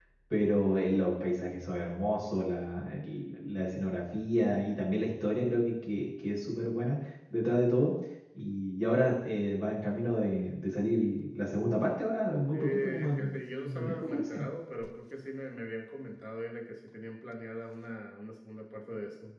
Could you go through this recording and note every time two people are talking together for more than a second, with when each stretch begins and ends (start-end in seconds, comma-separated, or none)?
12.5-14.5